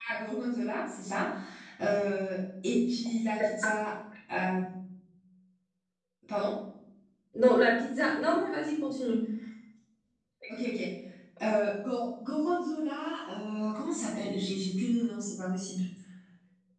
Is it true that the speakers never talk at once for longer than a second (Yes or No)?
Yes